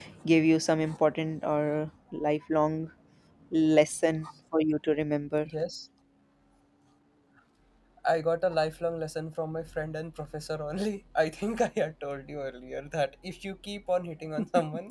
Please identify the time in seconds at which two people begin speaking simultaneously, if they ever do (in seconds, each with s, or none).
none